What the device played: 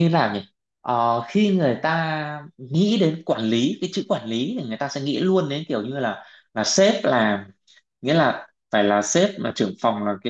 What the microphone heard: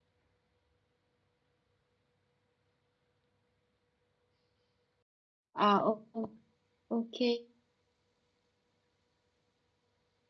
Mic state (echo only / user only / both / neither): user only